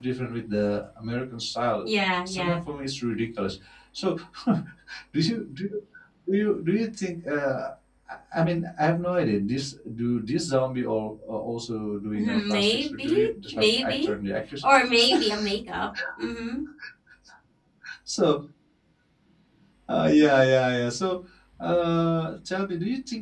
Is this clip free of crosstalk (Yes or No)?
No